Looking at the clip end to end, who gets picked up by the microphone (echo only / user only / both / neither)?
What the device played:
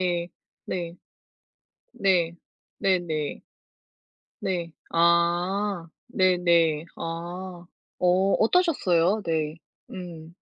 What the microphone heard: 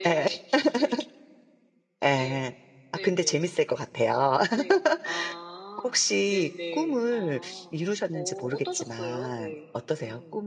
both